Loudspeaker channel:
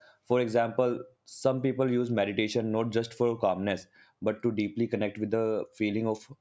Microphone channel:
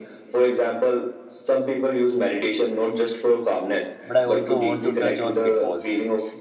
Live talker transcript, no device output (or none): But I also want to touch on pitfalls.